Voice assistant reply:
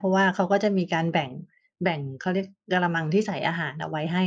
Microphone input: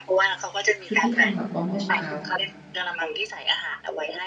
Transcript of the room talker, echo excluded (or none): ชุดที่ทำแบบว่าเมื่อเช้า